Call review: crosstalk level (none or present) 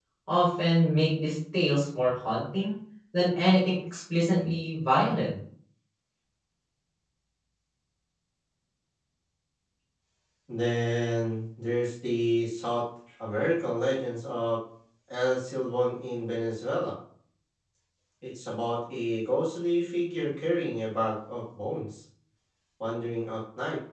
none